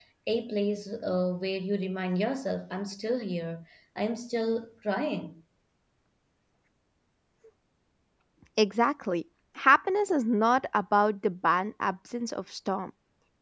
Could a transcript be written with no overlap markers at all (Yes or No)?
Yes